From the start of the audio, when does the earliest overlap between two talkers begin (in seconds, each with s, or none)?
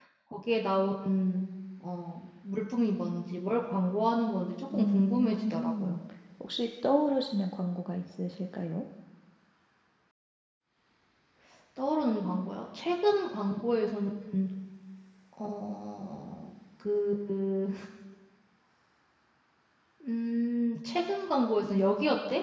4.7 s